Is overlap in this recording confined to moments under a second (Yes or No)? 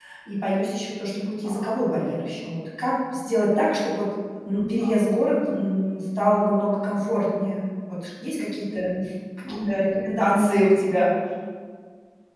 No